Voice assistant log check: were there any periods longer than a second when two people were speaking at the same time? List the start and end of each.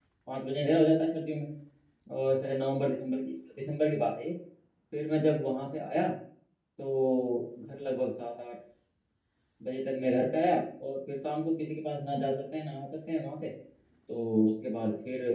none

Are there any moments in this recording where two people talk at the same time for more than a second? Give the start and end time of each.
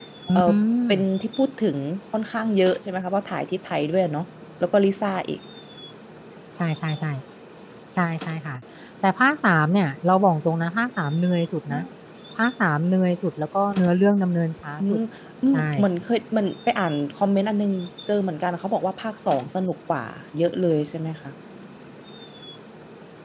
none

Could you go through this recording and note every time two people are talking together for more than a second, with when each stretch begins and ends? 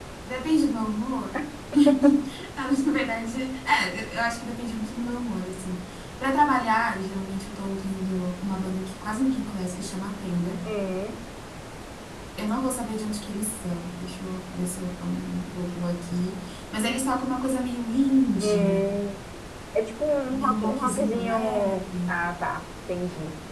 20.2-22.1

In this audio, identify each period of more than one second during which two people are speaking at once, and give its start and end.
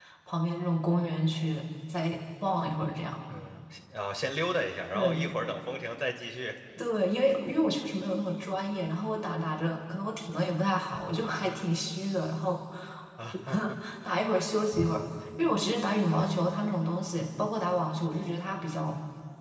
none

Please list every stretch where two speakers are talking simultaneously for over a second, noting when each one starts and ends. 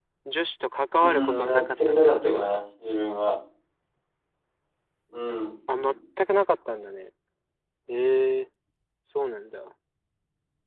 1.0-2.5

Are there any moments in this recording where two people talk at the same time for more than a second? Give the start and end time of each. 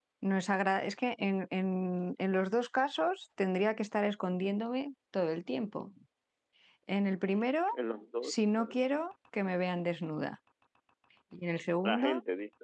none

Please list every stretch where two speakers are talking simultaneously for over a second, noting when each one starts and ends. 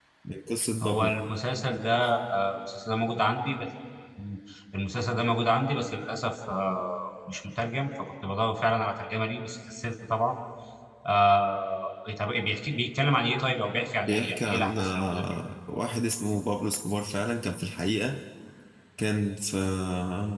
14.0-15.2

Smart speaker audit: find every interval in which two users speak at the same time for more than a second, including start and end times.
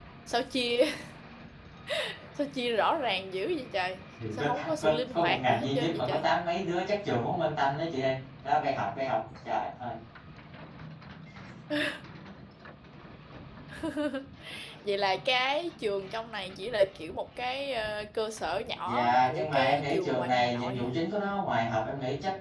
4.4-6.2, 18.9-21.0

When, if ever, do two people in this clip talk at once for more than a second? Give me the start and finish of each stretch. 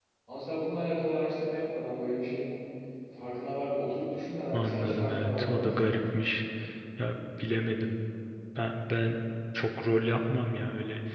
4.5-6.0

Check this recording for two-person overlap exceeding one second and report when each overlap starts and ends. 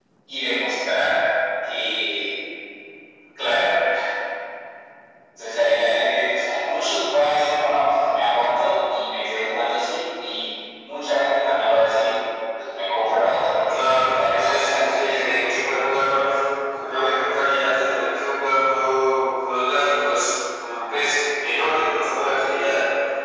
13.7-15.2

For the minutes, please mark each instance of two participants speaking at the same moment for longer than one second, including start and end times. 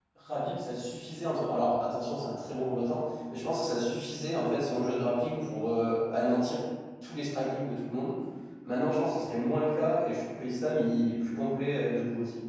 none

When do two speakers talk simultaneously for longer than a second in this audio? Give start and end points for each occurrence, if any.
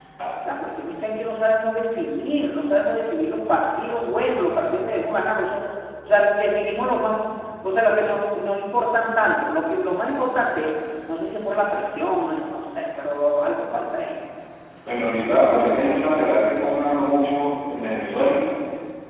none

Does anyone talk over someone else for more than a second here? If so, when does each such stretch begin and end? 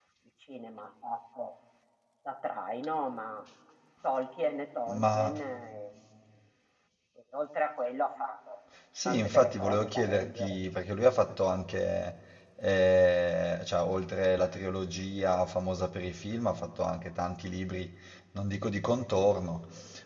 9.1-10.6

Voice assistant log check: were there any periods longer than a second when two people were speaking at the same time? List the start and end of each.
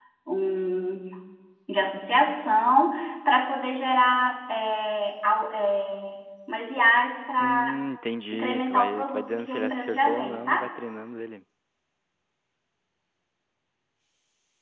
8.3-10.7

